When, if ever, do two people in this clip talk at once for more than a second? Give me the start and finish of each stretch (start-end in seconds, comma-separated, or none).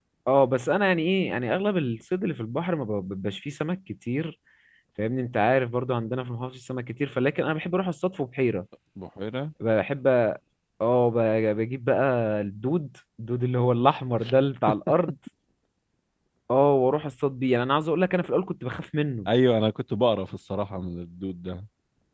none